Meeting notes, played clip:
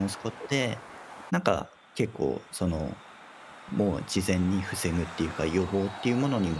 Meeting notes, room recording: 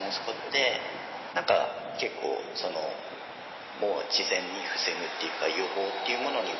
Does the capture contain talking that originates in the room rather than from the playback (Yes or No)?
No